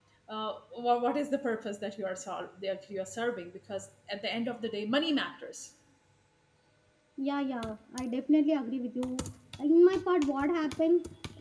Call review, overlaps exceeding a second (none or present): none